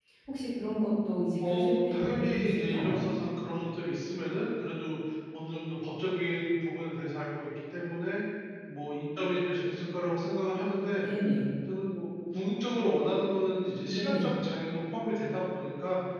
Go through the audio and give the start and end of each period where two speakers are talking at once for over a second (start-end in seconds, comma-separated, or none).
1.4-3.0